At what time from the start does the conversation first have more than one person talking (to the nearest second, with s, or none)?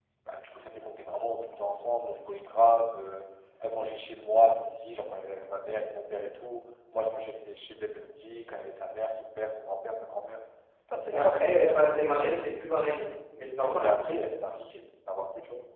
11 s